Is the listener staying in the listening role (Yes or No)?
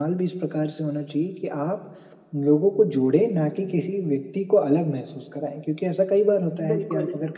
Yes